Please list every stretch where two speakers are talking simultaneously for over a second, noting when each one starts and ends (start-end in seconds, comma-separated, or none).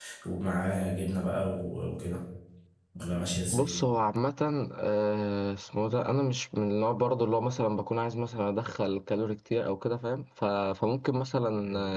none